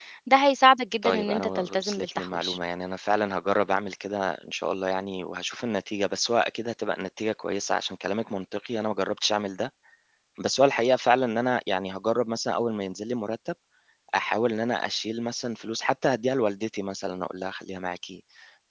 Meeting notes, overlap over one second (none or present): present